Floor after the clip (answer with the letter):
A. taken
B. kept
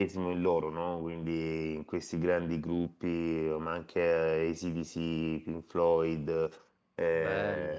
B